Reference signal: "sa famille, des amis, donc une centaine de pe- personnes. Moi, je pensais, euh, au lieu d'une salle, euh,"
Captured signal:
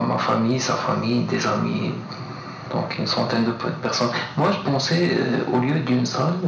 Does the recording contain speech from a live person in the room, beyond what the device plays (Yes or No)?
No